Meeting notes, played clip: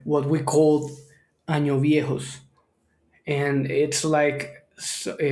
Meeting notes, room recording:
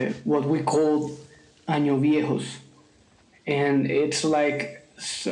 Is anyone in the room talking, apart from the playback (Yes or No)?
No